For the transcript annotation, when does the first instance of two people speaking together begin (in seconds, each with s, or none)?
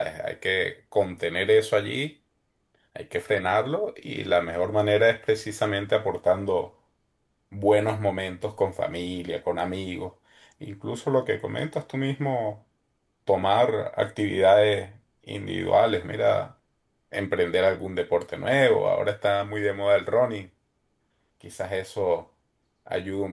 none